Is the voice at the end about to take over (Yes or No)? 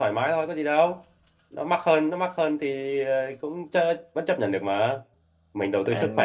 Yes